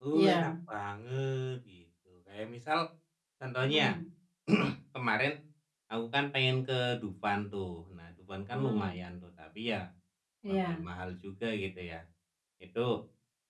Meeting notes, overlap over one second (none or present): none